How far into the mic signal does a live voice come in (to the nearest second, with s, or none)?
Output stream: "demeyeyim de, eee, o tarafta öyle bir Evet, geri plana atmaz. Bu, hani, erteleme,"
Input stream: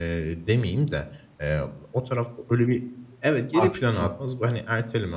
4 s